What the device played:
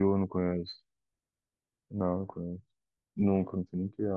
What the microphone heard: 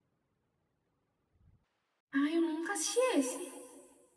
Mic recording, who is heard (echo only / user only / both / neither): user only